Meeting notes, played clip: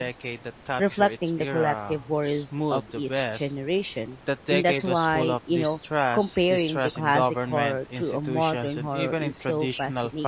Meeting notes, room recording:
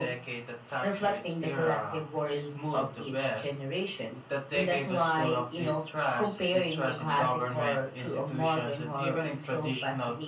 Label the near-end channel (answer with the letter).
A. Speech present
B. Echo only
B